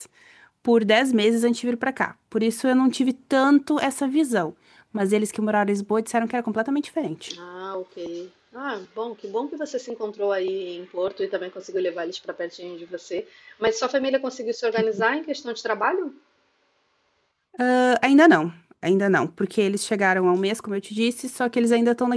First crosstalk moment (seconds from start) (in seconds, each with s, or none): none